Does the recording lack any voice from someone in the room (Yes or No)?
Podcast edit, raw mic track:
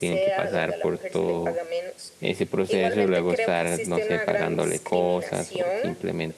No